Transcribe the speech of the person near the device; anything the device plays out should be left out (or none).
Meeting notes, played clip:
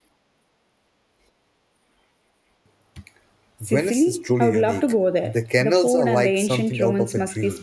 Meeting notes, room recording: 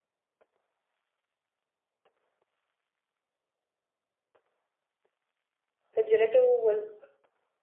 The gelato was